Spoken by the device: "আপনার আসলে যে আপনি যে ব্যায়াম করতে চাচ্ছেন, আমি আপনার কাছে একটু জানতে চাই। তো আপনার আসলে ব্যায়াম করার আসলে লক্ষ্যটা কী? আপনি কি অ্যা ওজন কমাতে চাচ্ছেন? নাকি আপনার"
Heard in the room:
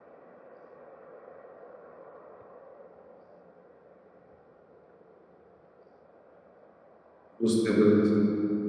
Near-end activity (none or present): present